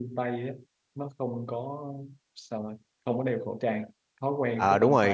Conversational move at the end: taking over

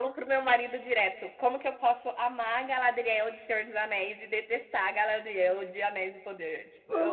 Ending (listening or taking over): taking over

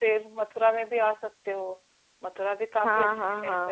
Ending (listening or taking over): taking over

